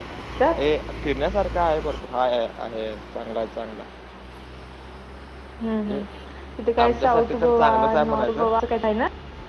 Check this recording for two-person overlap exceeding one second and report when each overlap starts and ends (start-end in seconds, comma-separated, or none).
6.8-8.4